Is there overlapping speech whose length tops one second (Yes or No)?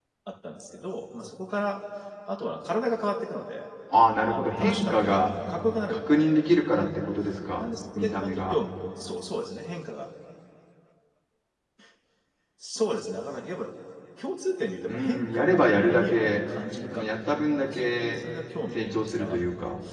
Yes